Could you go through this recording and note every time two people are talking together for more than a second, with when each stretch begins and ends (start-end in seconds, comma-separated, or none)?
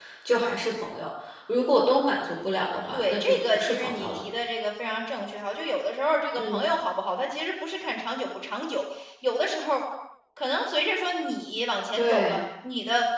2.9-4.2